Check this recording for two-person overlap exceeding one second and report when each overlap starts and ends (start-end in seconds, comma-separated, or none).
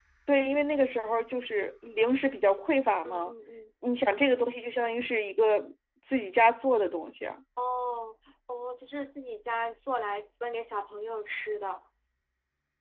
none